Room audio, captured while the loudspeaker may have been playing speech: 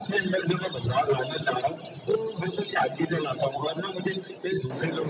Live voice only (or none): none